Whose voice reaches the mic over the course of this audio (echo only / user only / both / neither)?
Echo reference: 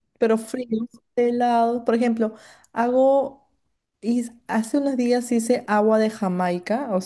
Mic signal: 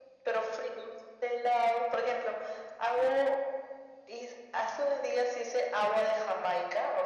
echo only